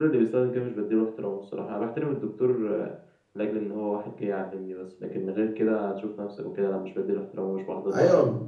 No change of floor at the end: No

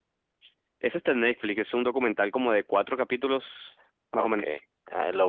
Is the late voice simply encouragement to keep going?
No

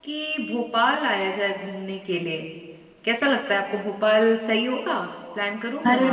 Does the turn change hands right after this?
Yes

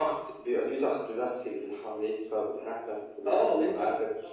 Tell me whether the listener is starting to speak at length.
Yes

